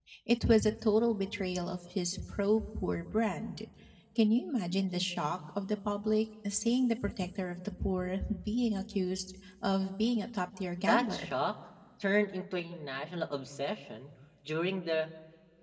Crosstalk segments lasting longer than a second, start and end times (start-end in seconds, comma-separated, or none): none